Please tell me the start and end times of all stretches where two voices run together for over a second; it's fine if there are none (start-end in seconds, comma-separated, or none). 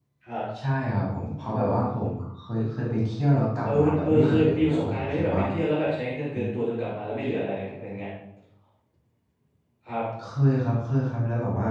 3.7-5.4